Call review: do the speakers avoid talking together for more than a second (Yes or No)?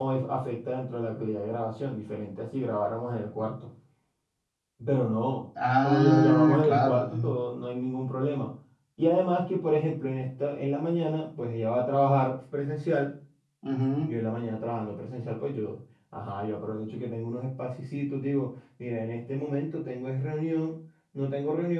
No